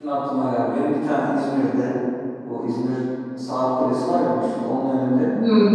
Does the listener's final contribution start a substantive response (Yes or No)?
No